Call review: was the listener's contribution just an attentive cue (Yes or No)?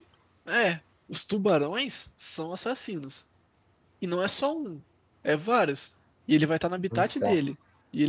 Yes